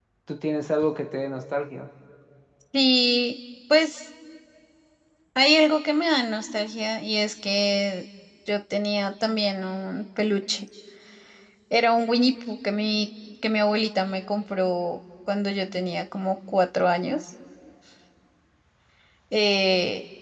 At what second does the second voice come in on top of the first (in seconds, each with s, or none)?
none